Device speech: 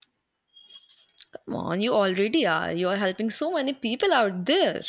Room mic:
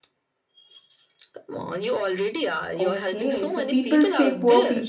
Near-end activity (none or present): present